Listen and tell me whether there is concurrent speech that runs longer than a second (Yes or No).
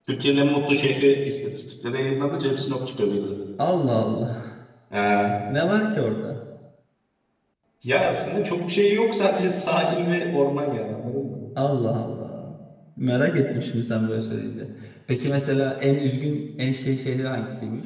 No